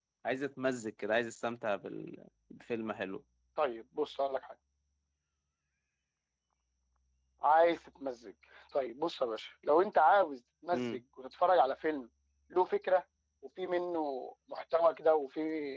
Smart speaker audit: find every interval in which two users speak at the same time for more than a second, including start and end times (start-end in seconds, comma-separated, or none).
none